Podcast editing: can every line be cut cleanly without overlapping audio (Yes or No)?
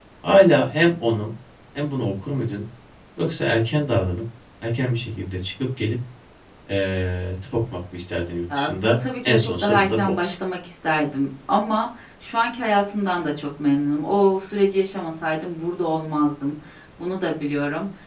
No